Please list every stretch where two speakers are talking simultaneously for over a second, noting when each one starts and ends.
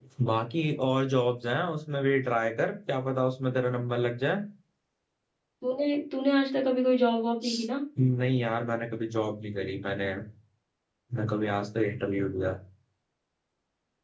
none

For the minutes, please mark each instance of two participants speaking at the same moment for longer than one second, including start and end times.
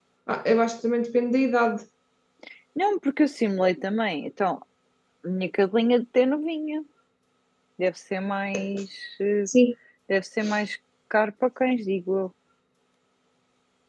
none

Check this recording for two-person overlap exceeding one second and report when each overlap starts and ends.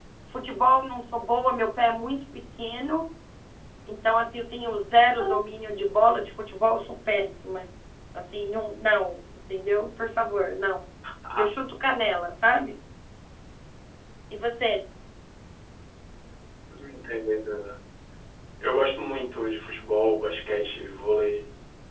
none

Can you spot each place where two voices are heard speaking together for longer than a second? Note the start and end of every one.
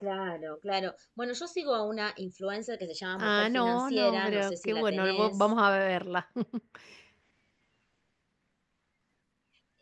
3.2-5.5

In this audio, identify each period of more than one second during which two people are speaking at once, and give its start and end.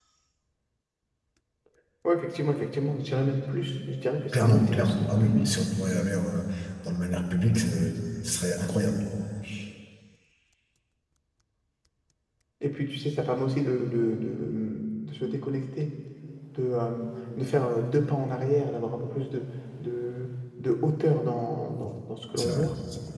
4.3-5.6

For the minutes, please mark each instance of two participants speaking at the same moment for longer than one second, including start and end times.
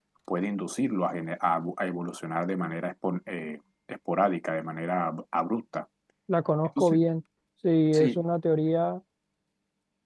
none

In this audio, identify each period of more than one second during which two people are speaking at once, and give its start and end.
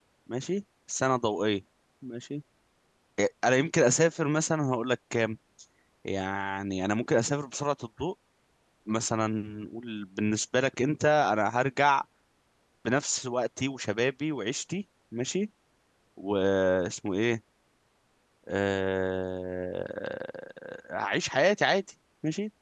none

